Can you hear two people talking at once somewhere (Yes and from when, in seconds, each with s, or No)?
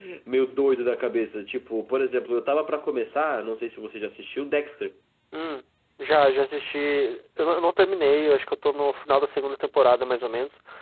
No